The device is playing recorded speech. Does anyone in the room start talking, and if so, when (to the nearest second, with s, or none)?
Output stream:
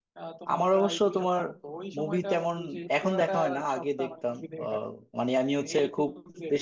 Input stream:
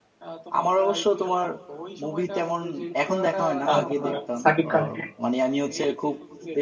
4 s